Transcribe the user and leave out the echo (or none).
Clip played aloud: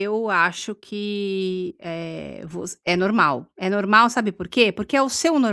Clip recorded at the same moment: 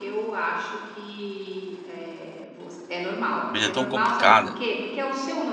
A vida é tão complicada